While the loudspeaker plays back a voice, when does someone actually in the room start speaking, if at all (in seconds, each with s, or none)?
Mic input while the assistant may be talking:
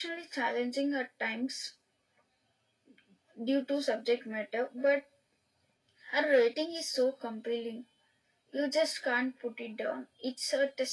none